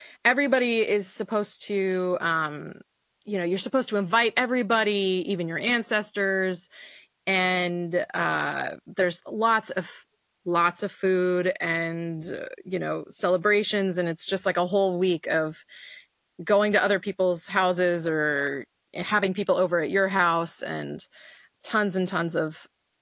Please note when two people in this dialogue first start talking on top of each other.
none

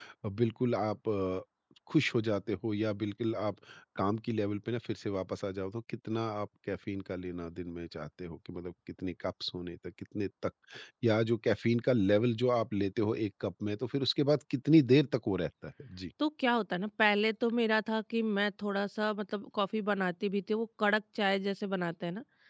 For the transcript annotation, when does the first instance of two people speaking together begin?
none

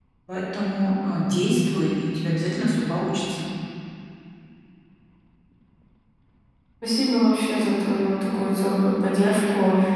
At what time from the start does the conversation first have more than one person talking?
none

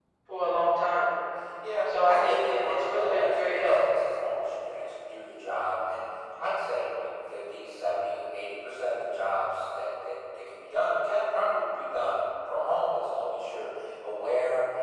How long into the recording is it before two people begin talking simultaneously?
2 s

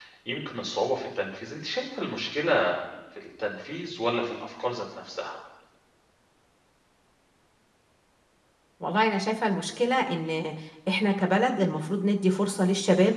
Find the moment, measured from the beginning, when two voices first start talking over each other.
none

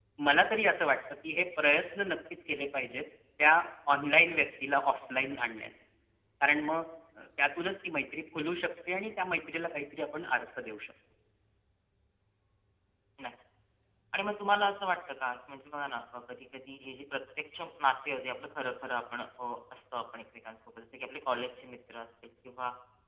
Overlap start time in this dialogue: none

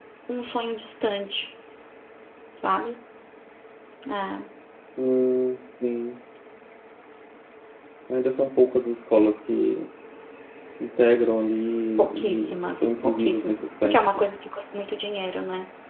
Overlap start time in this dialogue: 12 s

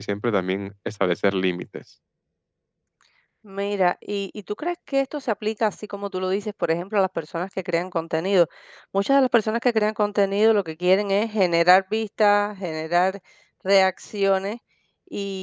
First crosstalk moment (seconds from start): none

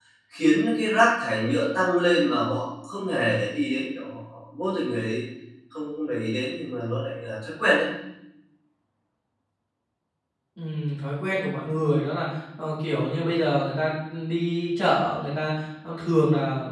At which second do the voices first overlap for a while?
none

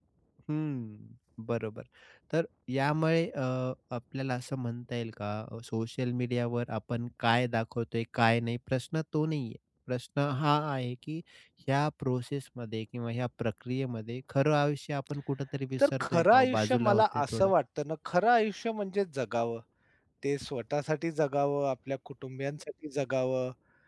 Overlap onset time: 16 s

